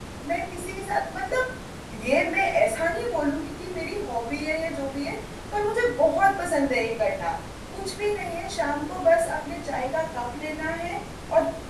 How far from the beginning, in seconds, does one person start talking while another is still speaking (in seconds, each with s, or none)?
none